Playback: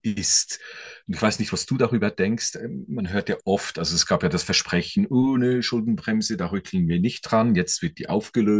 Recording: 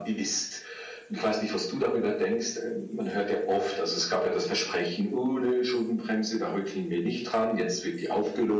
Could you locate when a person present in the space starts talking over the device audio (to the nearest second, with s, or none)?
none